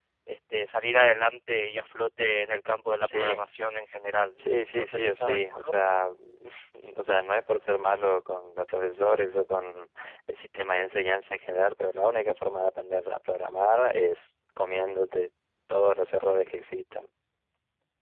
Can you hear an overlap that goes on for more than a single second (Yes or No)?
Yes